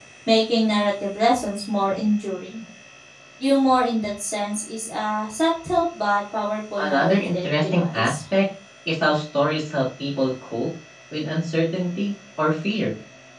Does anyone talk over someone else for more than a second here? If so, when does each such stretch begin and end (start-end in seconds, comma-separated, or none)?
6.8-8.2